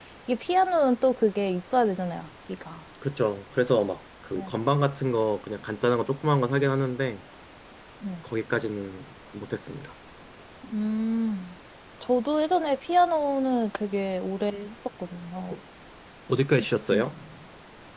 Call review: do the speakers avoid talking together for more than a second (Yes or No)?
Yes